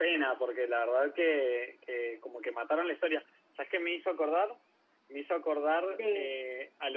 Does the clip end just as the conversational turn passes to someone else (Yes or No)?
No